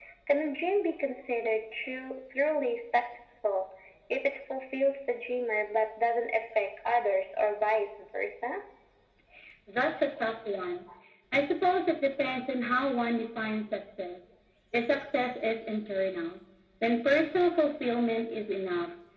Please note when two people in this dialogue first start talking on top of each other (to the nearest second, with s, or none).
none